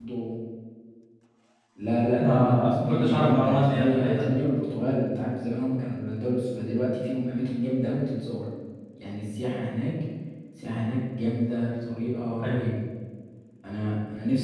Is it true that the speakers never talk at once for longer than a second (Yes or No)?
No